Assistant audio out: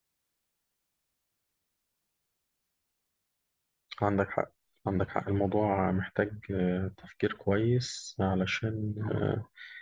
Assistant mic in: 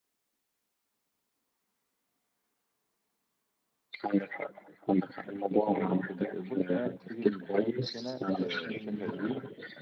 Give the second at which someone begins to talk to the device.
5.6 s

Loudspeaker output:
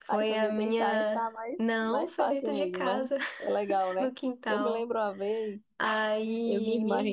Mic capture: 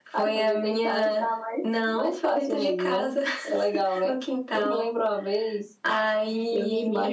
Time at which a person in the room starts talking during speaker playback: none

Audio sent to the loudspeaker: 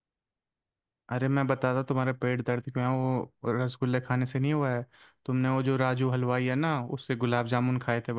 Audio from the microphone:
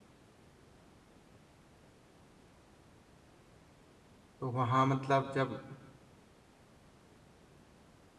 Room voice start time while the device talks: 4.4 s

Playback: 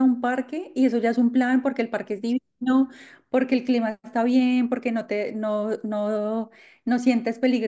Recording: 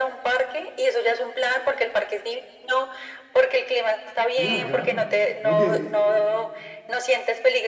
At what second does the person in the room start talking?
4.3 s

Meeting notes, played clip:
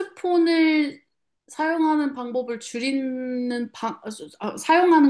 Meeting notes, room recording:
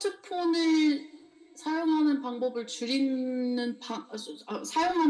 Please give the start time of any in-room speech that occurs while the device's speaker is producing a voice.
none

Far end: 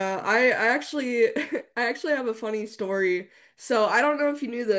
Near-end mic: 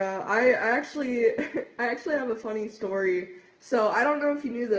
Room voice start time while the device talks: none

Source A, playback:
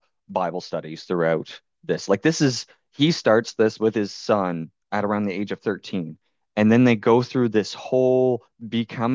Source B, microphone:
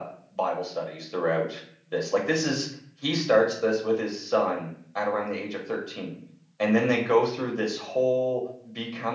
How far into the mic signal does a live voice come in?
none

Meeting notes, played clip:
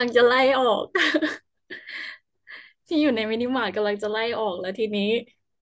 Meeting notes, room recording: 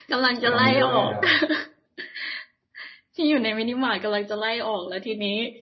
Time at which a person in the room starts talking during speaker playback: 0.4 s

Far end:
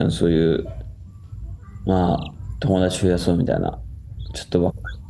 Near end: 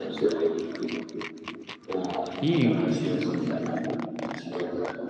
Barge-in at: 2.4 s

